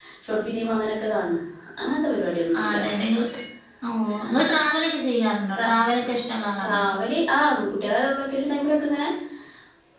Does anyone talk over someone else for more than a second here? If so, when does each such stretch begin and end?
none

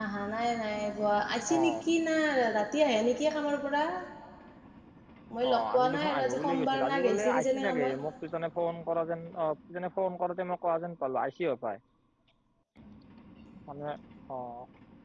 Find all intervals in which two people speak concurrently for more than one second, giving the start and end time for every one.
5.5-7.9

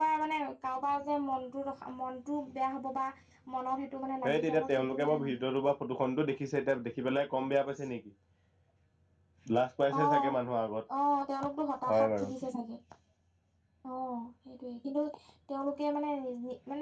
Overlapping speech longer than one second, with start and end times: 4.2-5.4

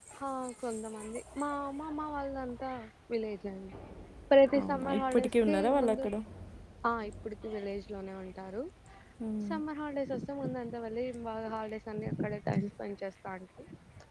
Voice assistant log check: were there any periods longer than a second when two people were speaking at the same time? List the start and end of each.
4.6-6.0

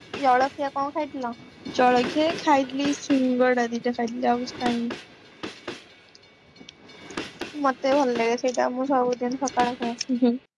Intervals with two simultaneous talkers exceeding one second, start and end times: none

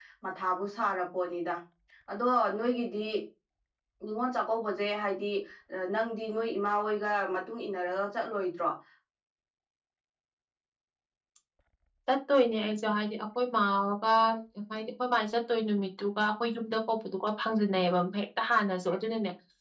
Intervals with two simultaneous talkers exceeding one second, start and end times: none

